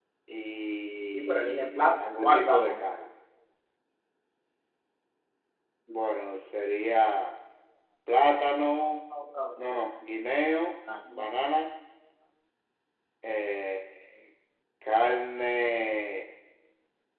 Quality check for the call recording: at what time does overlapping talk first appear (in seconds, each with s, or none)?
1.1 s